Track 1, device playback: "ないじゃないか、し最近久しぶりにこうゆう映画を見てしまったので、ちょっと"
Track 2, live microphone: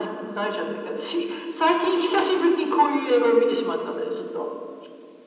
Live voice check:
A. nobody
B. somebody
A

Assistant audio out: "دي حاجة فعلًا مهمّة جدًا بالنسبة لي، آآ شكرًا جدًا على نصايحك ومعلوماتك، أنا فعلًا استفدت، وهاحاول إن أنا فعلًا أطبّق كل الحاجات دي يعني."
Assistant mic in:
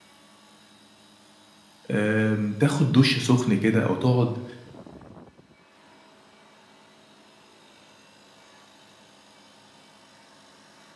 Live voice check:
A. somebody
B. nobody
A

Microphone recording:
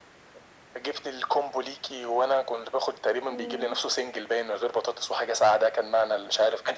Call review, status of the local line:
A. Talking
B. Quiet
A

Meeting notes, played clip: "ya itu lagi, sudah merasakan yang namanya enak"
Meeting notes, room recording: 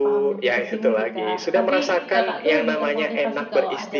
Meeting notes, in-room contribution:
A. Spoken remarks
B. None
A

